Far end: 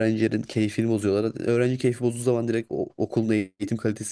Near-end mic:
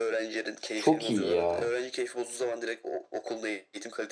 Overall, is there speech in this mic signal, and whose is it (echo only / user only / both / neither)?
both